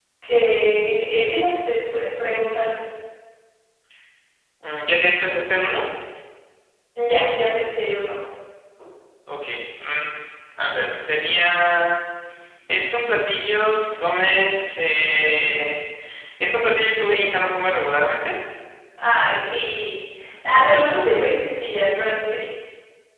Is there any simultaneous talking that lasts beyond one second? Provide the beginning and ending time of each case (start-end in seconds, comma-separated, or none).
none